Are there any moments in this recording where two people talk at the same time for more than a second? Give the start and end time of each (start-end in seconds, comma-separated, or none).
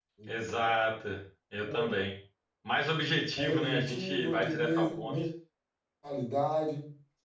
3.3-5.1